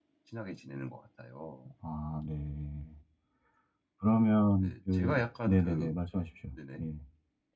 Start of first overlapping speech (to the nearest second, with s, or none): 5 s